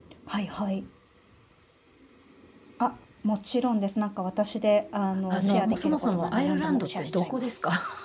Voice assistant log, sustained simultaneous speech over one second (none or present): present